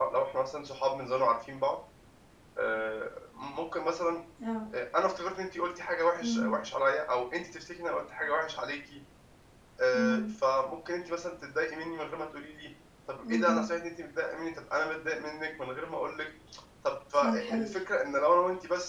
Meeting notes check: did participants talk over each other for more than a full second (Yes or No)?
No